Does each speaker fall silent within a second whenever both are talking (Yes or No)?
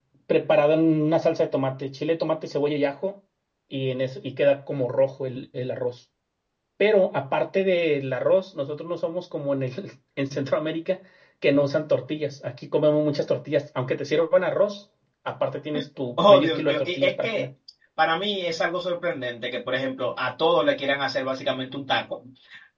No